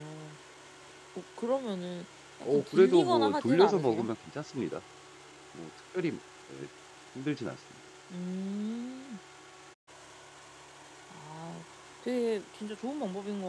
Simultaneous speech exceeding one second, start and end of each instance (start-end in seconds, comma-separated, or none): 2.5-4.1